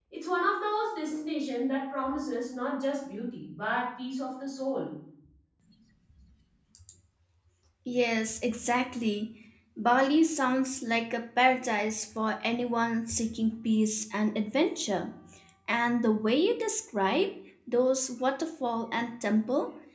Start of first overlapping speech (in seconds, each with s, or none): none